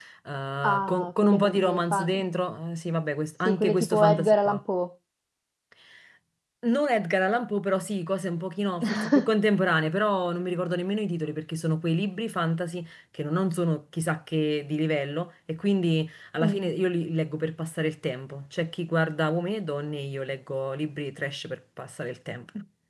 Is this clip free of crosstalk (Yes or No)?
No